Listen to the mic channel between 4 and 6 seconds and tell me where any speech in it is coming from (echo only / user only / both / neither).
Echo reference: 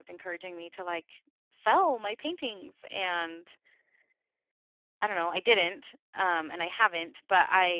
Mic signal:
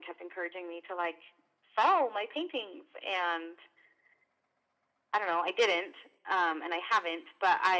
echo only